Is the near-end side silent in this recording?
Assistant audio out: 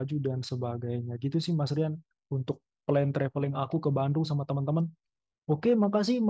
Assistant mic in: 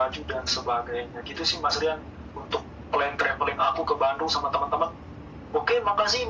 Yes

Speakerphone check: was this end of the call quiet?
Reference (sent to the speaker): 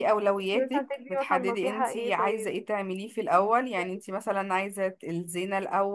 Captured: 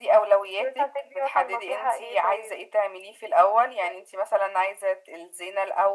Yes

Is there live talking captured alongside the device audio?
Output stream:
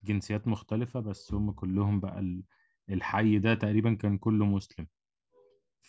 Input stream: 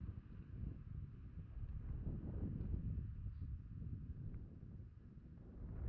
No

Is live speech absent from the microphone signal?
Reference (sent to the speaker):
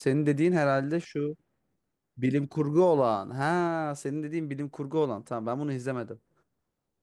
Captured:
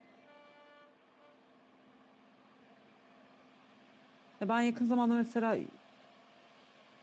No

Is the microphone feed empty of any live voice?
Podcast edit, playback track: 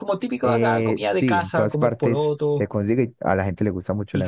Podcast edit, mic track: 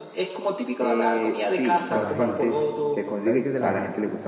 No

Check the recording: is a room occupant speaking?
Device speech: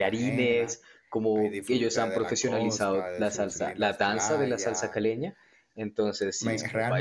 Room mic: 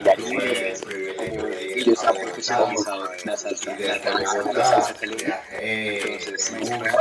Yes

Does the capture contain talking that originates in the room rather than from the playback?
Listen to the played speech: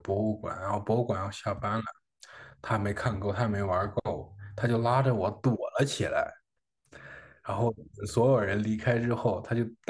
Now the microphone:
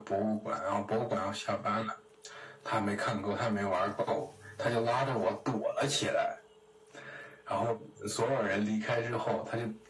No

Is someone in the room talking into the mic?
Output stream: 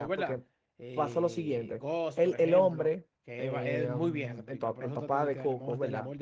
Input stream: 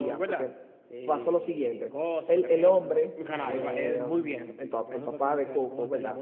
Yes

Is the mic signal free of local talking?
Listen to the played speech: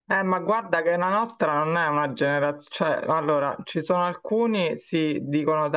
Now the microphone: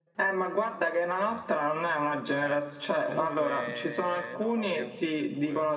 No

